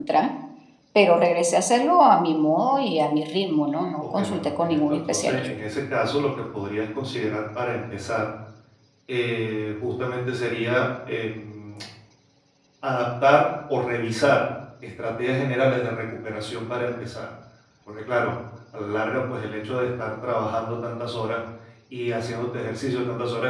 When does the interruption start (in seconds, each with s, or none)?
4.0 s